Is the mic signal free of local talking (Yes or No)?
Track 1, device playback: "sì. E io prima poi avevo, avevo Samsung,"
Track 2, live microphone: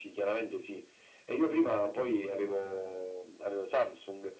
Yes